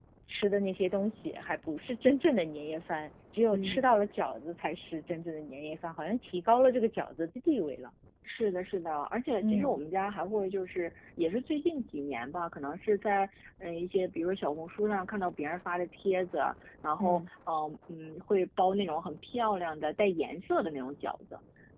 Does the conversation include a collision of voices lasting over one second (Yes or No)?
No